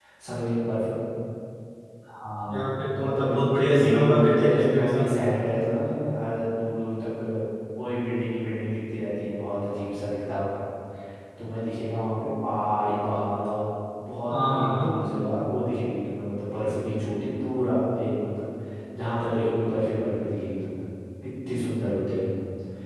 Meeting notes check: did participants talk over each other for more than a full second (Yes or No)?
Yes